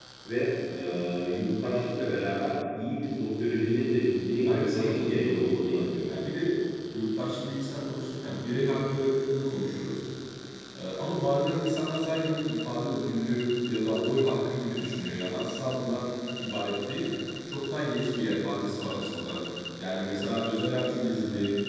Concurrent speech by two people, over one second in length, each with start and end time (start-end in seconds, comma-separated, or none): 4.5-6.1